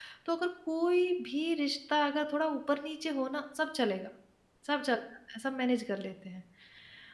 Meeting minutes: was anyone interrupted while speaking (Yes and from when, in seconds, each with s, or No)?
No